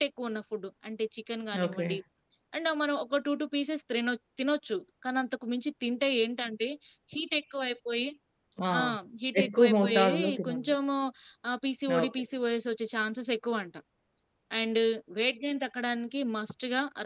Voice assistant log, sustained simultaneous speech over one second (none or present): present